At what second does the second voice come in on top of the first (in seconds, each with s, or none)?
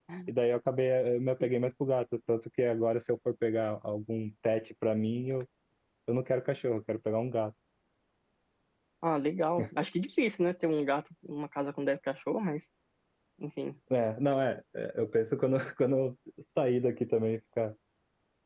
none